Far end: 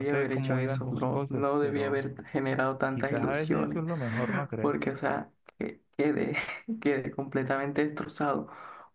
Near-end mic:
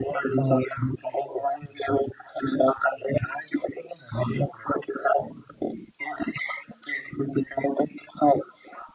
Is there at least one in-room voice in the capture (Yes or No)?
No